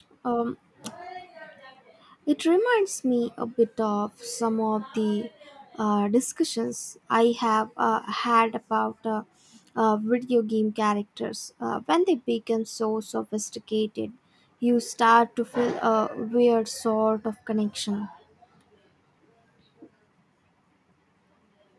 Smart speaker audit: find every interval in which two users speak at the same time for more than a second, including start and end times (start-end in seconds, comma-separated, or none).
none